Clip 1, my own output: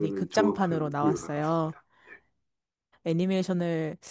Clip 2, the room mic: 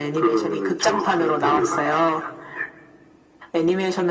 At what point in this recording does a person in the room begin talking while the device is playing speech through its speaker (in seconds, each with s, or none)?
1.4 s